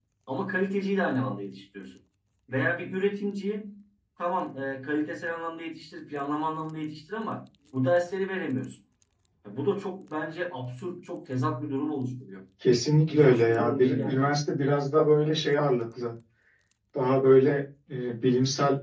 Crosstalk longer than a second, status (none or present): present